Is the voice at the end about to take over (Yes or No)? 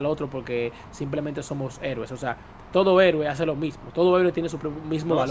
Yes